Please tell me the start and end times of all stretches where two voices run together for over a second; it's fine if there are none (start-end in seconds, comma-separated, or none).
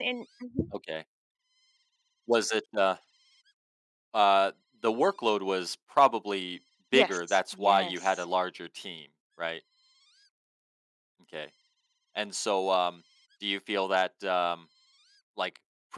6.9-8.2